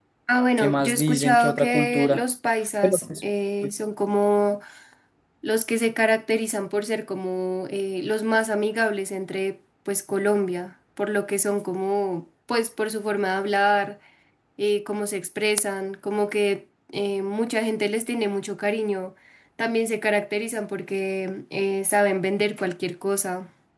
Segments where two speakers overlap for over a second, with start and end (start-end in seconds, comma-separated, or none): 0.6-2.2